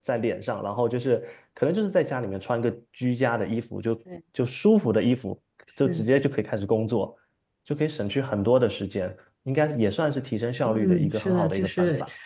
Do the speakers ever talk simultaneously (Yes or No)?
Yes